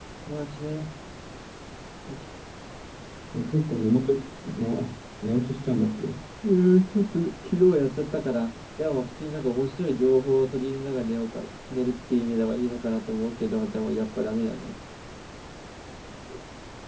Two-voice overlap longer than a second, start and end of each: none

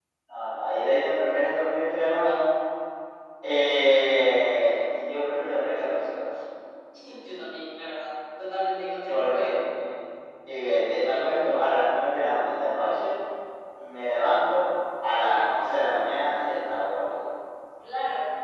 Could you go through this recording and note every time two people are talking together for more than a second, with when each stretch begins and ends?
none

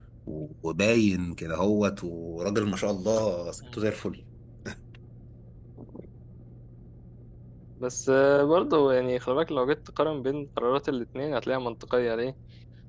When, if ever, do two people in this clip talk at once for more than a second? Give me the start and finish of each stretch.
none

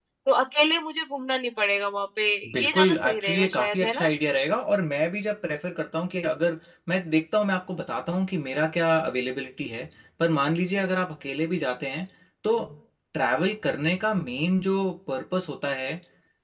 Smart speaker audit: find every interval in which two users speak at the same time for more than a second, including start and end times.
2.5-4.1

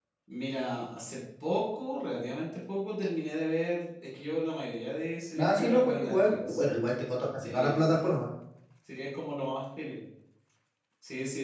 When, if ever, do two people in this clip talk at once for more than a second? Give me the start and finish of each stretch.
5.4-6.6

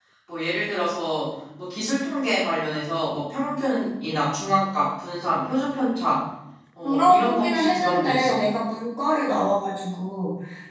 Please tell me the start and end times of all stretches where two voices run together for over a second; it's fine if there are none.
6.8-8.5

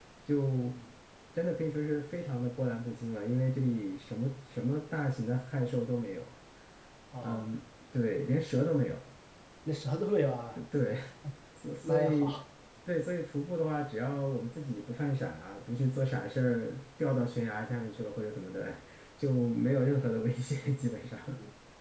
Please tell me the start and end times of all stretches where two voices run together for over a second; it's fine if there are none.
none

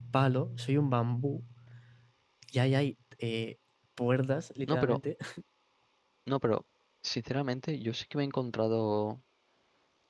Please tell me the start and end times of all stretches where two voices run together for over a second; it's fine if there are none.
none

